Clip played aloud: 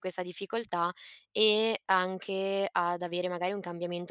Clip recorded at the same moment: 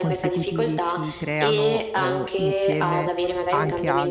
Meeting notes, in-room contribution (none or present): present